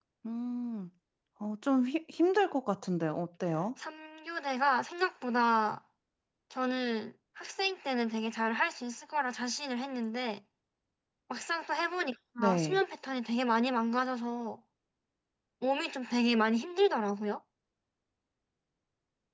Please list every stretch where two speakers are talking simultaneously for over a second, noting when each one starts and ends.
none

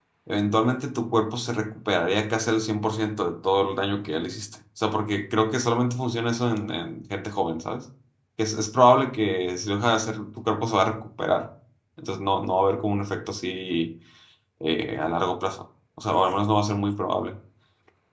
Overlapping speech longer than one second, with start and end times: none

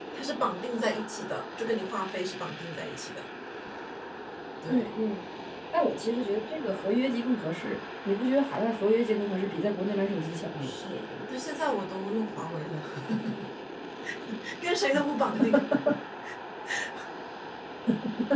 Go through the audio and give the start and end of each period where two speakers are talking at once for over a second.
none

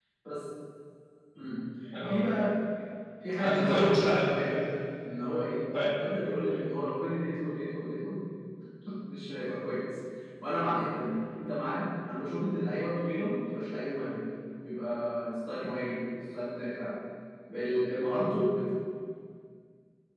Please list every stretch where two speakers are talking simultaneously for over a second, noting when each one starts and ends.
3.4-4.7

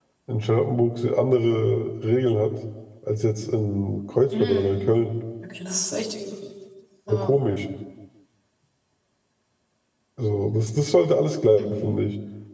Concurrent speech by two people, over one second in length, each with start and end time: none

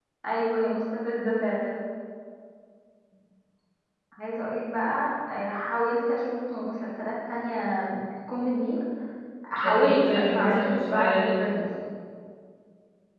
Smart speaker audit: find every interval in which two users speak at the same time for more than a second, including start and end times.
9.6-11.4

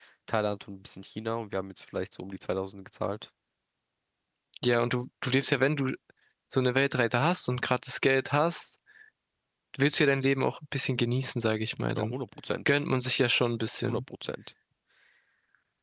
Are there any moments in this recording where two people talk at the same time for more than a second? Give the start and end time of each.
none

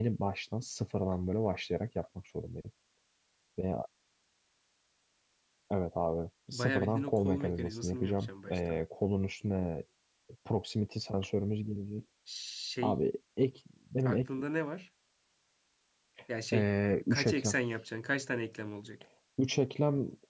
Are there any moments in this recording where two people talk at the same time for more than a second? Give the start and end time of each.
6.5-8.8

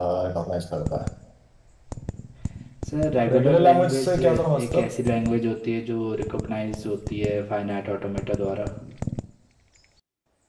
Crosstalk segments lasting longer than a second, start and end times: 3.3-4.9

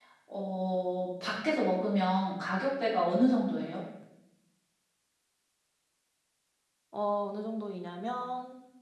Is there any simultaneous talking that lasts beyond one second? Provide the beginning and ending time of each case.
none

